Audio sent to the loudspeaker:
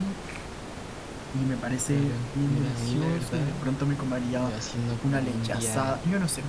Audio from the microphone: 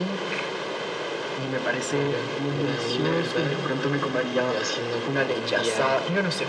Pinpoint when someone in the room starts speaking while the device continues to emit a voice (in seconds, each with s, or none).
none